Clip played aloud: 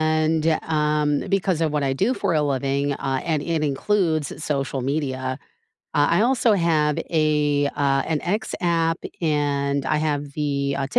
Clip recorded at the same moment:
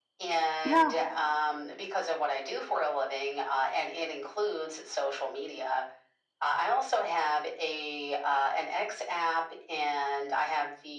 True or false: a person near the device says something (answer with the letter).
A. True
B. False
A